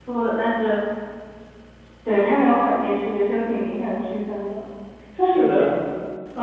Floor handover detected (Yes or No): No